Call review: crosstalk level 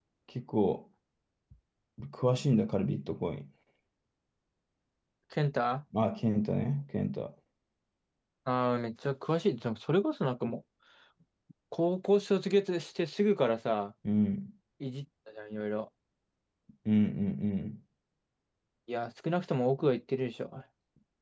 none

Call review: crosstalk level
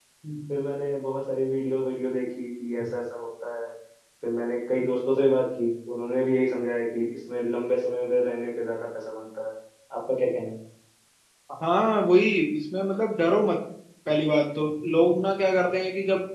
none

